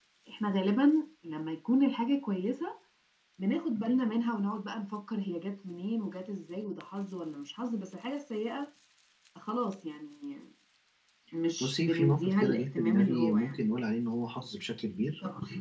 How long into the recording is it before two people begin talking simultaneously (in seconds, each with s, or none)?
11.6 s